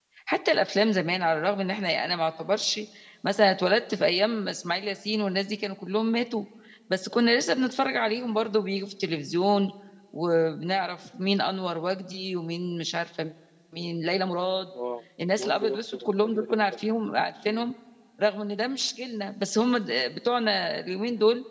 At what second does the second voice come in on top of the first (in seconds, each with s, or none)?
15.4 s